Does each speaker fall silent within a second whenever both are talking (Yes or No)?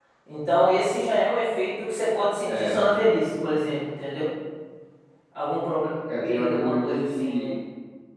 No